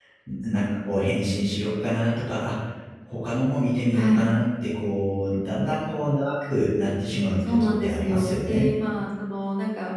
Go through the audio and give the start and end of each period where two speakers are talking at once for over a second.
7.5-8.7

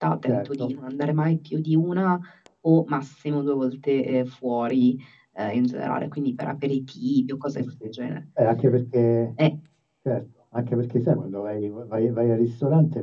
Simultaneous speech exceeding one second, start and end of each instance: none

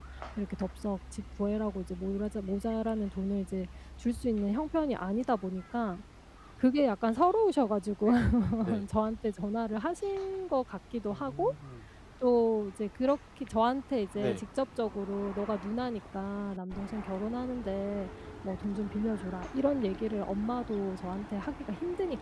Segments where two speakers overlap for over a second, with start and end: none

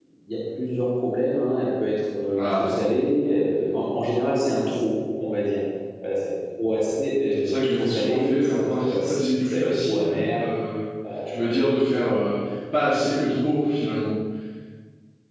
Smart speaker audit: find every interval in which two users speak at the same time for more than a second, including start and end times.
7.4-10.4

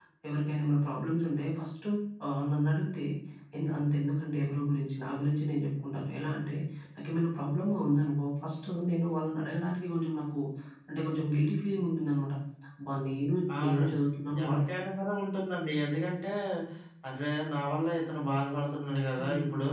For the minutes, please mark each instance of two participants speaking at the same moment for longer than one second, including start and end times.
none

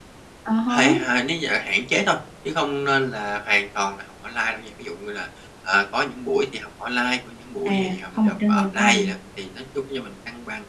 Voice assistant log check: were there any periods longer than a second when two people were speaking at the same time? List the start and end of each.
7.7-9.0

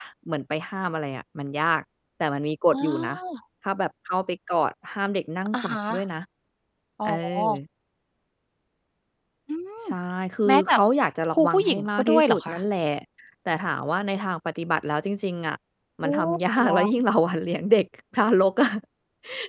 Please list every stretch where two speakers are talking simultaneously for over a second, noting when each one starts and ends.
11.3-12.6

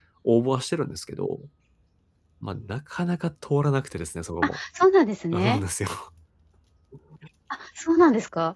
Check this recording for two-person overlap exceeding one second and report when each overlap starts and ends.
none

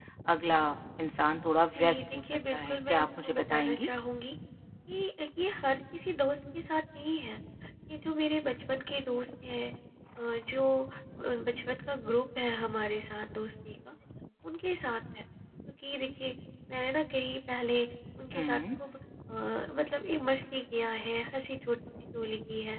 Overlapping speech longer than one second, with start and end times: 1.7-3.9

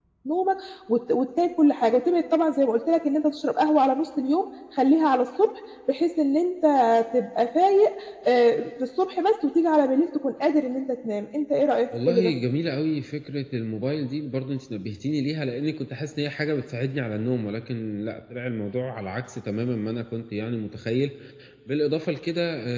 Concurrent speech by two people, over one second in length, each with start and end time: none

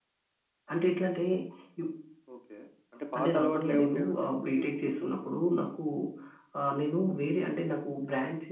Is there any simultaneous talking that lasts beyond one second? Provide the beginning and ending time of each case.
3.2-5.1

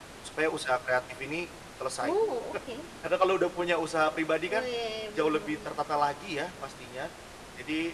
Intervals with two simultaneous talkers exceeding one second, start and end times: none

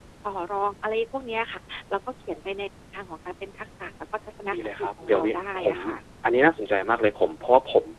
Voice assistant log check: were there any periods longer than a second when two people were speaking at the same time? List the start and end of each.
4.5-5.8

